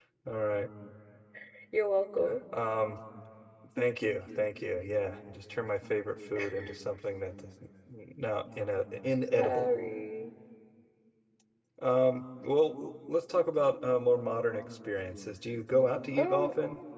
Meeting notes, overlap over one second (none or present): none